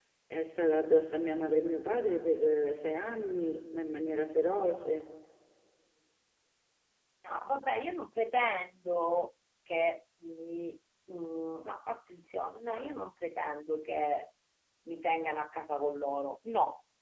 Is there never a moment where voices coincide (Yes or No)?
Yes